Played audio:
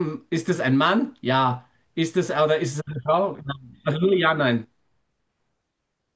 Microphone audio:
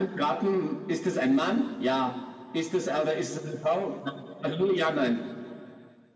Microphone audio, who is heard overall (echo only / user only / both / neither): echo only